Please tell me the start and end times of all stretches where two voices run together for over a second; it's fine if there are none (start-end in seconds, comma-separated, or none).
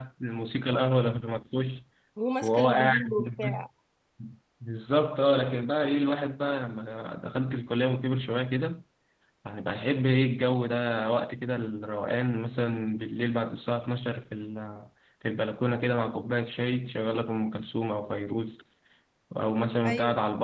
2.4-3.6